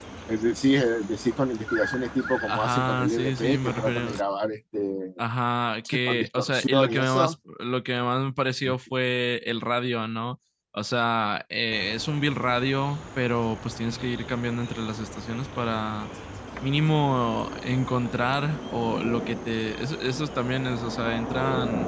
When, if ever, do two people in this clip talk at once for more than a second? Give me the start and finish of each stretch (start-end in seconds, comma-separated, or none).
2.5-4.2, 6.1-7.3